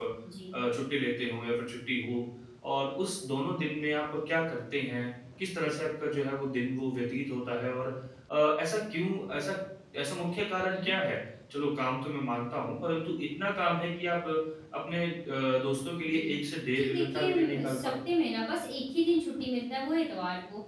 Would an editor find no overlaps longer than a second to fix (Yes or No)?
No